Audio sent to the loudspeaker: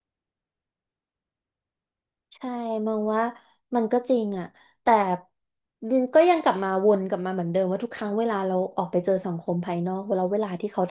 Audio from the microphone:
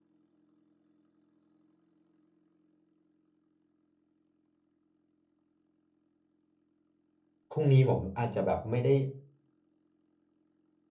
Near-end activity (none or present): present